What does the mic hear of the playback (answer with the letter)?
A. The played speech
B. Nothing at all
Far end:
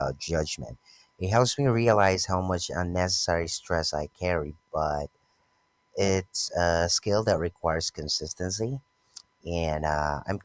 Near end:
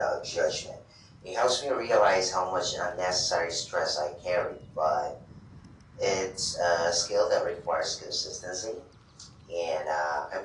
A